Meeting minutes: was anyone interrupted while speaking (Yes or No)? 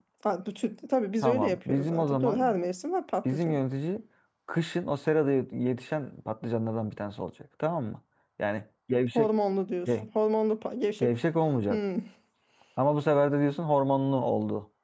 Yes